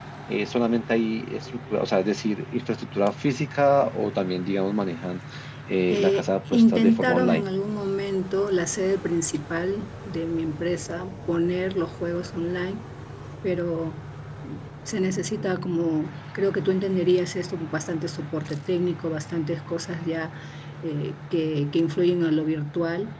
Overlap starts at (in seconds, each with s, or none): 5.9 s